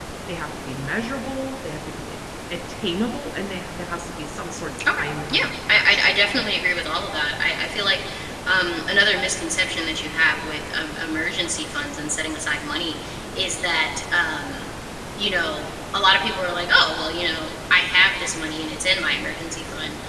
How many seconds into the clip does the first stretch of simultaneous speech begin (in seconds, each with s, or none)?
4.8 s